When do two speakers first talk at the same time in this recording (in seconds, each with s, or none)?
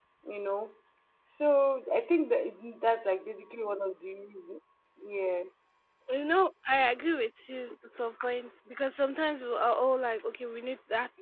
none